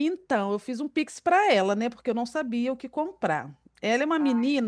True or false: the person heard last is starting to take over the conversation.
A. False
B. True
A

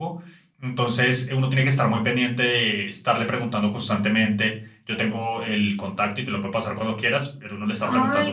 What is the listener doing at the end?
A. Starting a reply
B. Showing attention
B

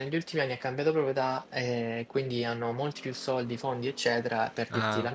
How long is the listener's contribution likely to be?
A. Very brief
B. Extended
A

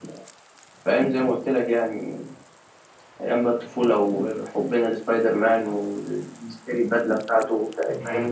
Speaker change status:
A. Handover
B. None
A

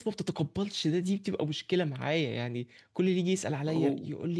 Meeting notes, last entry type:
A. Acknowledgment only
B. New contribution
A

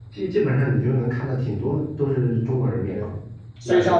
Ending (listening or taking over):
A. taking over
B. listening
A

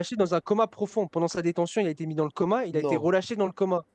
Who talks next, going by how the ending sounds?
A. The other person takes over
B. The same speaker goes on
B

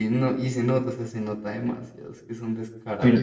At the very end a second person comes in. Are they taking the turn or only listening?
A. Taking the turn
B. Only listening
A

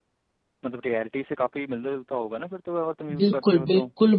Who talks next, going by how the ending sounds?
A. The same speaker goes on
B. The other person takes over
B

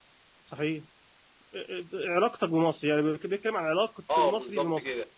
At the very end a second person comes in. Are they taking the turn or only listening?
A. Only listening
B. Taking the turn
B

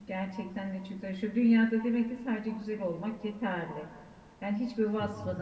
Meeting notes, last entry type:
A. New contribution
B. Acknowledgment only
B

